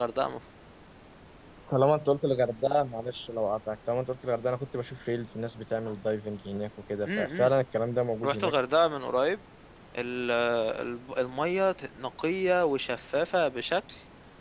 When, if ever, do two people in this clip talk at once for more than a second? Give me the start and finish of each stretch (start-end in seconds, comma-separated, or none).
none